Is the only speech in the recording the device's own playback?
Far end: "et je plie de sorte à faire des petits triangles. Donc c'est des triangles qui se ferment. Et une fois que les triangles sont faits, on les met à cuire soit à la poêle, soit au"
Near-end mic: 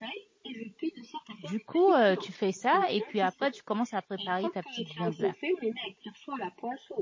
No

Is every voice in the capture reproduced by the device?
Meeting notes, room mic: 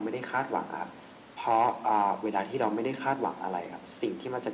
Yes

